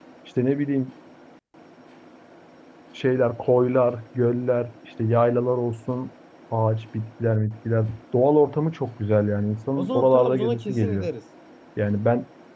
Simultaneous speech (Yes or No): Yes